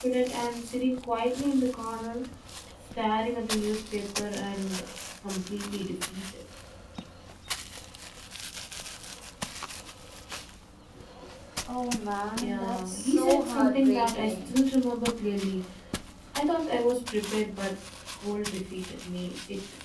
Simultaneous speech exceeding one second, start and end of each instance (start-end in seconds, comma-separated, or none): 12.4-14.5